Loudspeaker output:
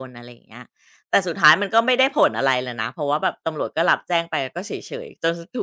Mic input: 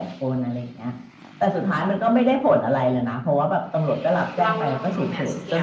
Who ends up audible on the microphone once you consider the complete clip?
both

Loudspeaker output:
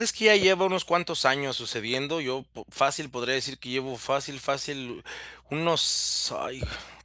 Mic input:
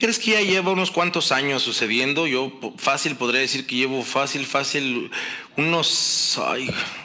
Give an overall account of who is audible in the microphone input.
echo only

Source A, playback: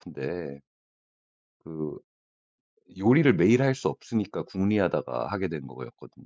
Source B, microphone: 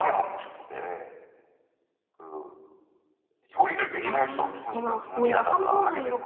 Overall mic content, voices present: both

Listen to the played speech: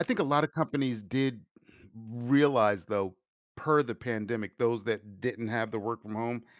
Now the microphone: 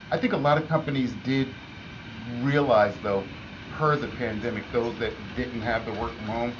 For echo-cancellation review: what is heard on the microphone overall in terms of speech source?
echo only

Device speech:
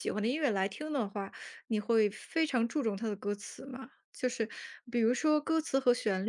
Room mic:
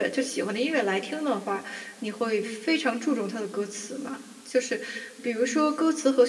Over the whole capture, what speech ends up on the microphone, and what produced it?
echo only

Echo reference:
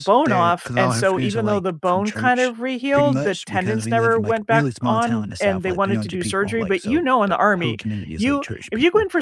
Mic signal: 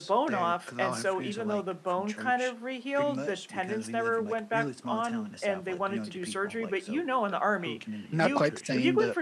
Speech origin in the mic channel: both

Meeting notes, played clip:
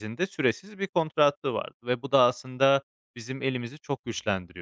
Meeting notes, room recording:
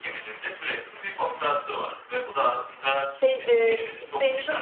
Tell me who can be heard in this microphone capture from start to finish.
both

